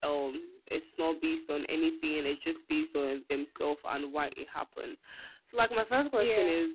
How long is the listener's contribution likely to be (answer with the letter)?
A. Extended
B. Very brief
B